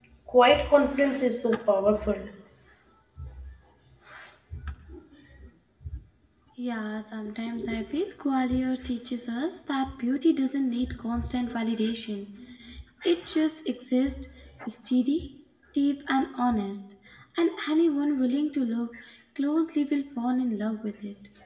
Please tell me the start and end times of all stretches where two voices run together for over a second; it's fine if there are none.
none

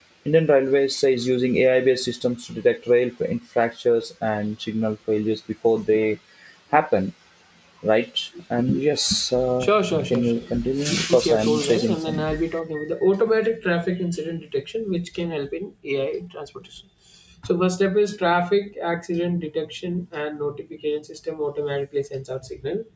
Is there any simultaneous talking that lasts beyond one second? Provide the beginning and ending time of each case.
11.1-12.4

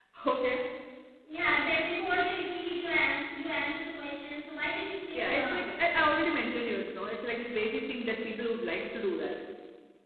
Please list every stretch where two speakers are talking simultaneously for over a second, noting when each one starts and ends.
none

